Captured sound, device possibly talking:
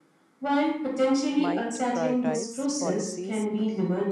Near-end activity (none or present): present